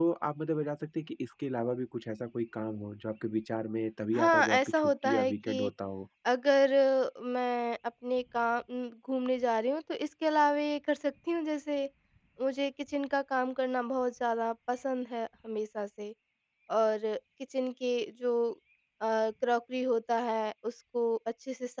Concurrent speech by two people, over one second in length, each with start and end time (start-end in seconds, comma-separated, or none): 4.1-5.7